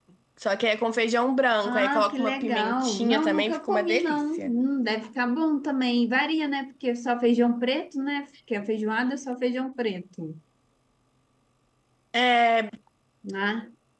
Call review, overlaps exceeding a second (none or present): present